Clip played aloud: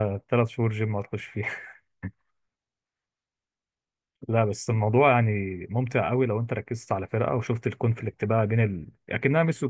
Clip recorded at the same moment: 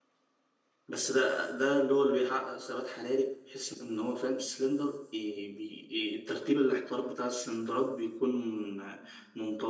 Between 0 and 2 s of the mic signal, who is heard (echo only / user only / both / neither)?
user only